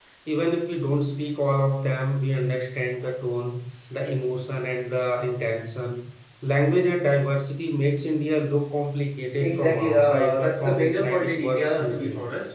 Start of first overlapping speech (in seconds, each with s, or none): 9.4 s